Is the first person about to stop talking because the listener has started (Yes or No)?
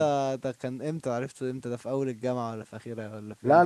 Yes